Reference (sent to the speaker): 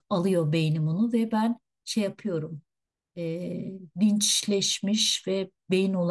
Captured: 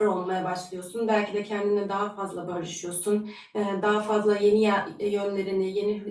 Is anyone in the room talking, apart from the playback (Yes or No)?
Yes